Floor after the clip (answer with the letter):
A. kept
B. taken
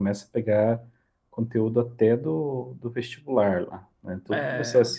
A